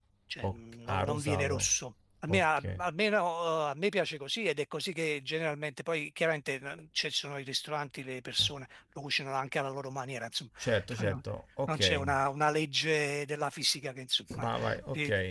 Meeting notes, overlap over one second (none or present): present